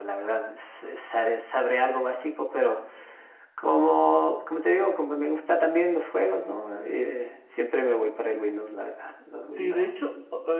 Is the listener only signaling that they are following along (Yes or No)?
No